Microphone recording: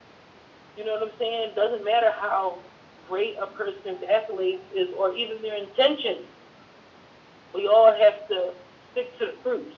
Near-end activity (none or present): none